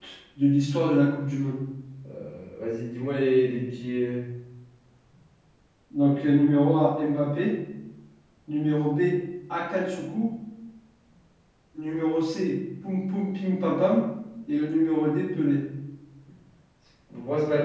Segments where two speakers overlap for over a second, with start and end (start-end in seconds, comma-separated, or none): none